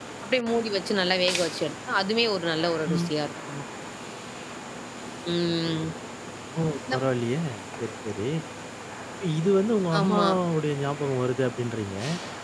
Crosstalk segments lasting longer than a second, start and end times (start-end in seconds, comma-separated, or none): none